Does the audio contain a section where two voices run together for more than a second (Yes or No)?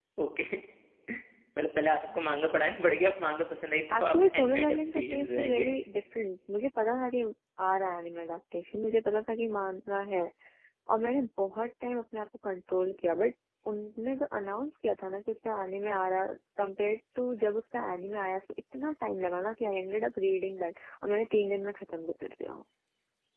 Yes